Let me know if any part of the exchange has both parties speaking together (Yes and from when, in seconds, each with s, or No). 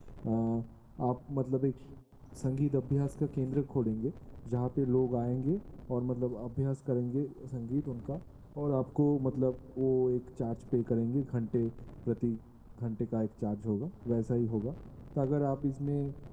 No